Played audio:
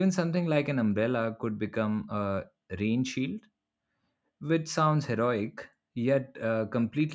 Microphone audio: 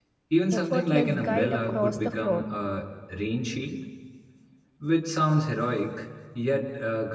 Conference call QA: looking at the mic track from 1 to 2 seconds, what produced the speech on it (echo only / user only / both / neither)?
both